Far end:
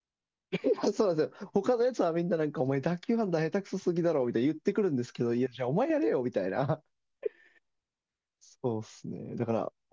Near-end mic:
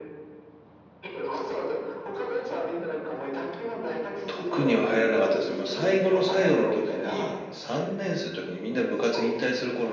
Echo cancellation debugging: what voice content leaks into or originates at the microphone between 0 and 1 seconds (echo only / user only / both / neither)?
neither